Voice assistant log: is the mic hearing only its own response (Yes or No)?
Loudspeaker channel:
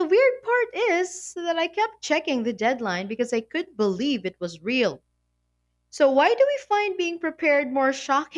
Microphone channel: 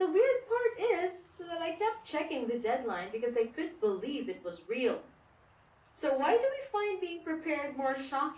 Yes